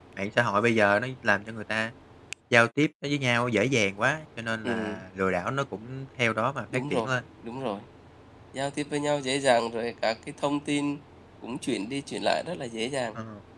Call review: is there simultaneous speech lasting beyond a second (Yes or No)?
No